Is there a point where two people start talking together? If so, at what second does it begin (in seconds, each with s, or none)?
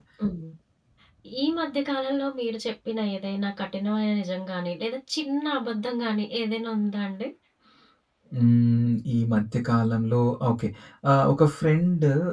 none